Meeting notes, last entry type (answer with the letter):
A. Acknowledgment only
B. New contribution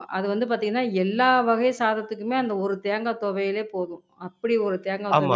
B